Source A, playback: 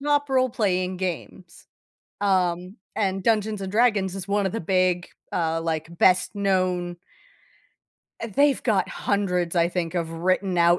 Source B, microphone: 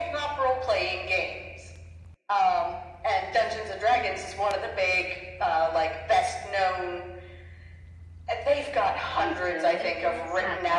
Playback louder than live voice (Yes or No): Yes